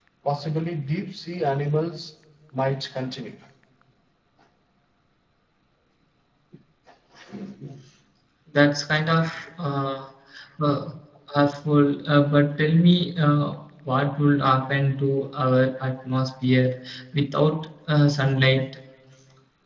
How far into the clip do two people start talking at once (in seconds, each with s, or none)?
none